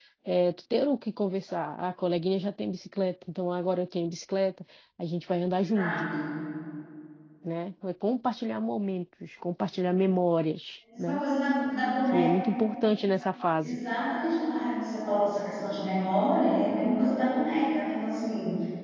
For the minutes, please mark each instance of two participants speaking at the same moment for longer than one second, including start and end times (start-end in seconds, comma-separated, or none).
none